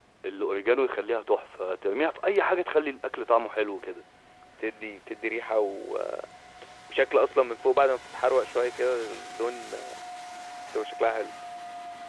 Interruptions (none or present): none